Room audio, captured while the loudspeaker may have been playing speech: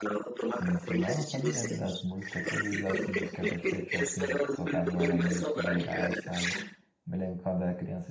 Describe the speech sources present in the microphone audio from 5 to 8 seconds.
both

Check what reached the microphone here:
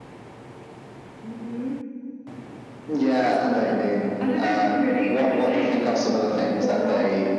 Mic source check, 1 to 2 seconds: echo only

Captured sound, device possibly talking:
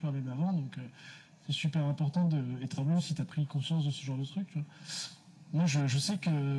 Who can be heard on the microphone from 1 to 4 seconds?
echo only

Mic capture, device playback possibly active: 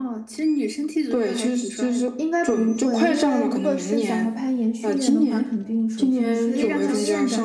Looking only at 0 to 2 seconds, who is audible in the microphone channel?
echo only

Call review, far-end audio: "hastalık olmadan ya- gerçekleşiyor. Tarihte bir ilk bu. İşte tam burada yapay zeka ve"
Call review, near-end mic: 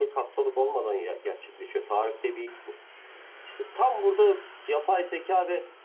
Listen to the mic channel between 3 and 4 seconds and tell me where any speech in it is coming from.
echo only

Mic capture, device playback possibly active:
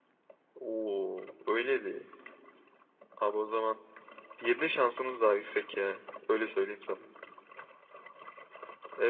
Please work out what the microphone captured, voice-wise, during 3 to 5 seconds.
echo only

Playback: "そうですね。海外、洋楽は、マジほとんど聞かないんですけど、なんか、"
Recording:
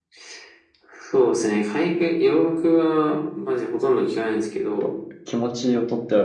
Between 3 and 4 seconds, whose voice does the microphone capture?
echo only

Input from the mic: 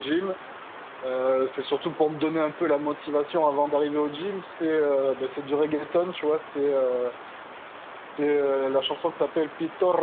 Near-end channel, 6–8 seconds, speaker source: user only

